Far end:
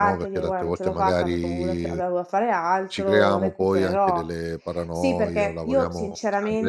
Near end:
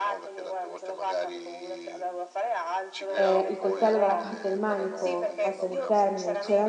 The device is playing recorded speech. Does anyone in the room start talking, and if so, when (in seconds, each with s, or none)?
3.2 s